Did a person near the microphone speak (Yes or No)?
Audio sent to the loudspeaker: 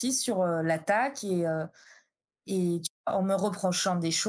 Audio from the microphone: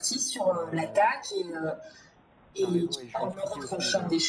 Yes